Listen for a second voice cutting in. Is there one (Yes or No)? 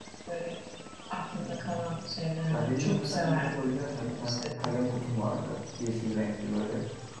Yes